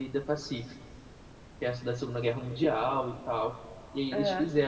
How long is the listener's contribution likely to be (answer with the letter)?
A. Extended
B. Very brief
B